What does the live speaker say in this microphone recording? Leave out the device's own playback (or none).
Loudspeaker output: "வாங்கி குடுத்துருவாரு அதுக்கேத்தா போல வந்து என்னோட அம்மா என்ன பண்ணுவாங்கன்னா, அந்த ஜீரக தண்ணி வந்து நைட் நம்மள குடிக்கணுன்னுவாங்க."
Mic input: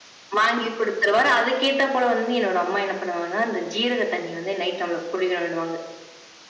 none